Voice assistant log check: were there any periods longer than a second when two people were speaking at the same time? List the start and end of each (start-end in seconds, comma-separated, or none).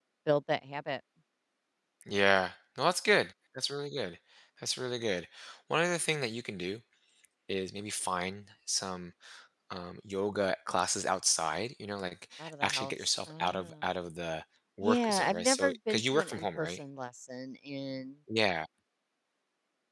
12.4-13.7, 14.8-16.8